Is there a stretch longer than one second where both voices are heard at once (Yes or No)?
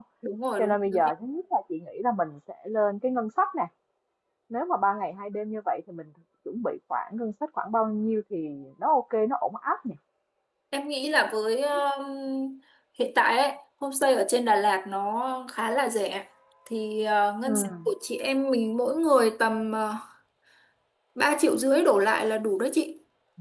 No